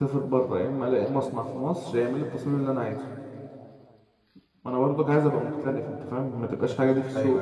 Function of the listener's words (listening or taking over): taking over